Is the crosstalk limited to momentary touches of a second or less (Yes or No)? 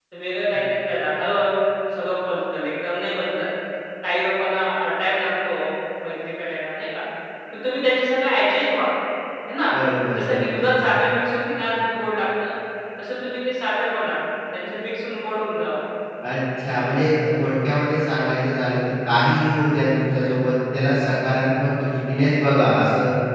Yes